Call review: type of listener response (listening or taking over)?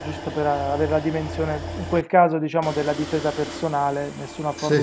listening